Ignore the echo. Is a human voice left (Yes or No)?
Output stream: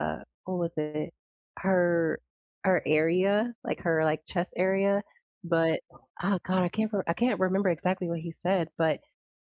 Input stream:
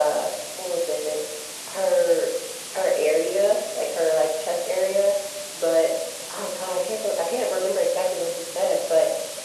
No